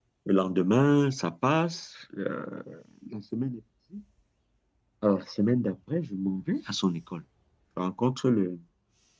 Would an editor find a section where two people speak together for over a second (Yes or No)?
No